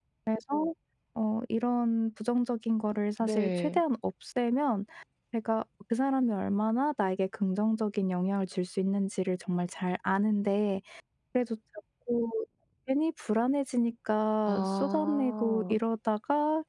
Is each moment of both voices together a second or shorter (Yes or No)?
No